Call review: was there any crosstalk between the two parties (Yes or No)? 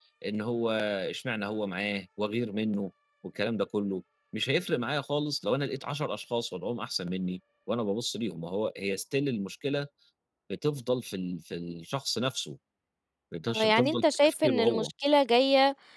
Yes